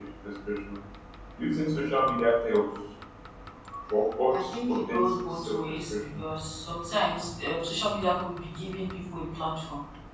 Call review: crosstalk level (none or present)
present